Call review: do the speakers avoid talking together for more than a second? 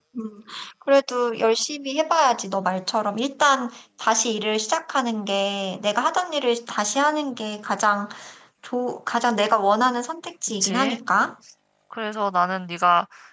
Yes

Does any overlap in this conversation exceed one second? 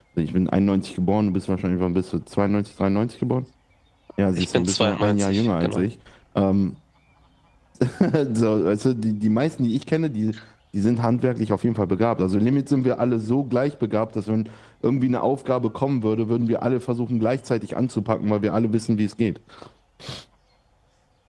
Yes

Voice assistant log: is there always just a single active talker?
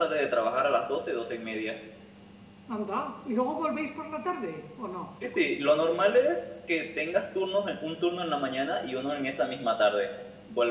Yes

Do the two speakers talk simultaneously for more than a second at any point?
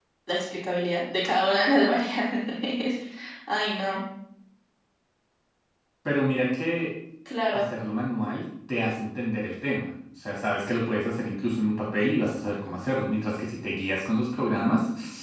No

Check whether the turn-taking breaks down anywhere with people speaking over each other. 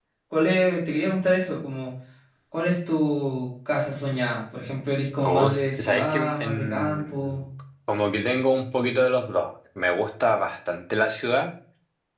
Yes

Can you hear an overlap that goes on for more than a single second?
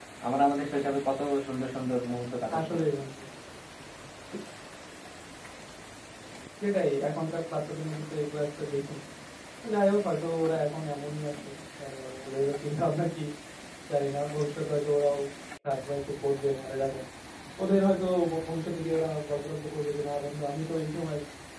No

